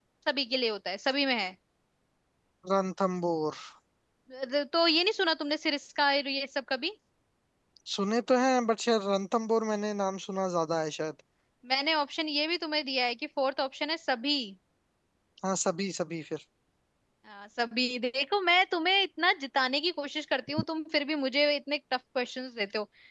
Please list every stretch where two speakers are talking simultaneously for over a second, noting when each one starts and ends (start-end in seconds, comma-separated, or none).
none